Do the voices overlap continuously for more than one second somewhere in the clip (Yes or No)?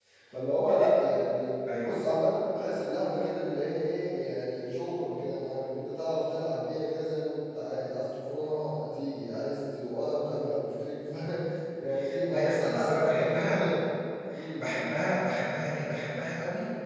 Yes